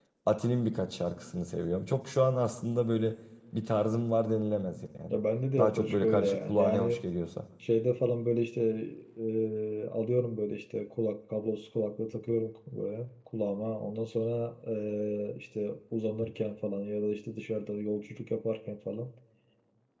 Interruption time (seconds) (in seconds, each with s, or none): 5.6 s